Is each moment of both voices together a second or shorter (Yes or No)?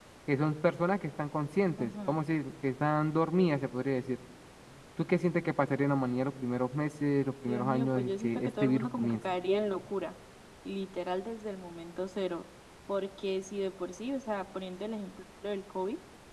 No